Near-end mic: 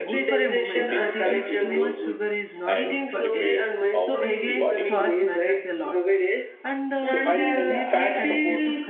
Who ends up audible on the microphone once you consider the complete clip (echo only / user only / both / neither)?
both